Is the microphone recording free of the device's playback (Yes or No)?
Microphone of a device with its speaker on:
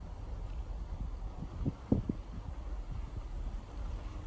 Yes